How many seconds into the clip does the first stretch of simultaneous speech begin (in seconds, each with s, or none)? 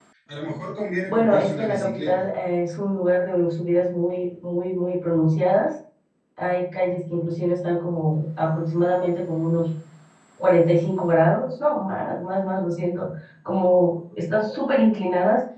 1.1 s